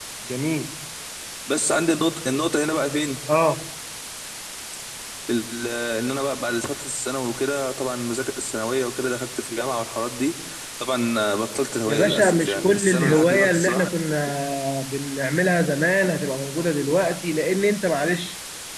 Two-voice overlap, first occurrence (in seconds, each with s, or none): 11.9 s